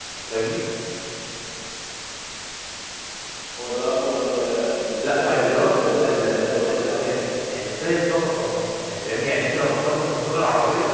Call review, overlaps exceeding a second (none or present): present